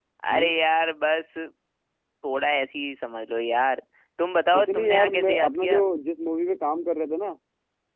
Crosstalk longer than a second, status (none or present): present